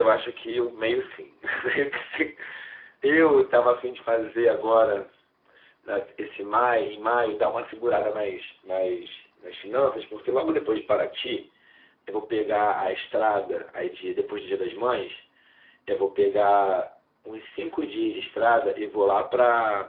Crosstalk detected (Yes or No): No